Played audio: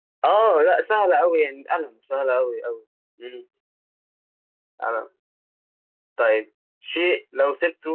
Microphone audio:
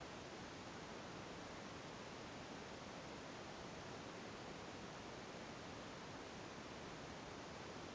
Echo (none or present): none